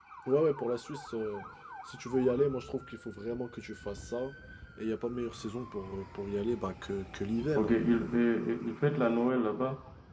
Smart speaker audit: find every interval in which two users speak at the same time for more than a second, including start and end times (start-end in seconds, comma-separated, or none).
none